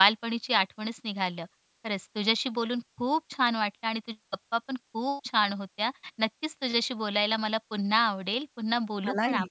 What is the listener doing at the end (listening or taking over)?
listening